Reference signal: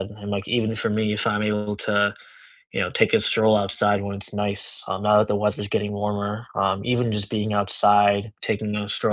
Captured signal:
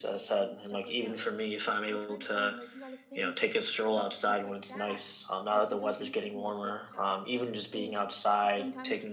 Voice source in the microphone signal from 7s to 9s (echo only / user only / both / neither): both